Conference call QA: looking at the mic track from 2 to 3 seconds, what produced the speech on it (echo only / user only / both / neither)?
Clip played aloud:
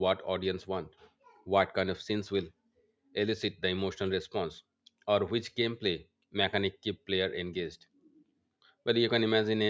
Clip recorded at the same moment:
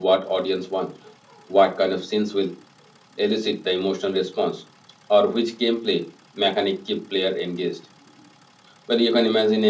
echo only